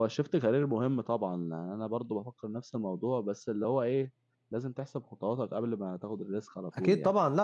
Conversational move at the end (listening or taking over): taking over